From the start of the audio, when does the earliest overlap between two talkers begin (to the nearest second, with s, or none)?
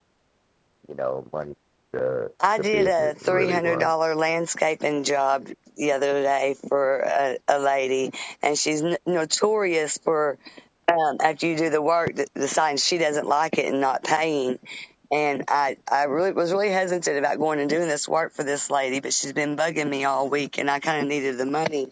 3 s